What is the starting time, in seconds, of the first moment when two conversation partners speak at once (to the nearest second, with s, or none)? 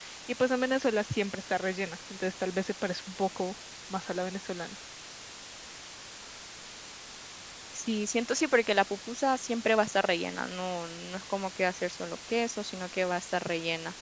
none